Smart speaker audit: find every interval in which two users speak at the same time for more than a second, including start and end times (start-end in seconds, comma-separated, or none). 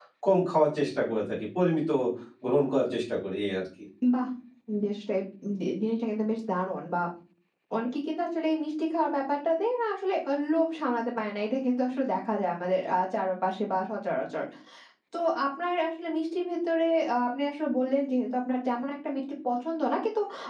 none